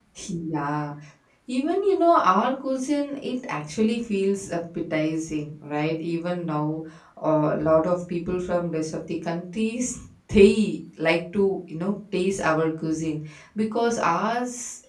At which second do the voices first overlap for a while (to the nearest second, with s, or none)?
none